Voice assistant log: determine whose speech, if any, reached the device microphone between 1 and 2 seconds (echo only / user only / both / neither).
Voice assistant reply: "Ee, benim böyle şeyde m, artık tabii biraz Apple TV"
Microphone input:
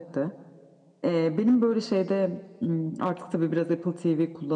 echo only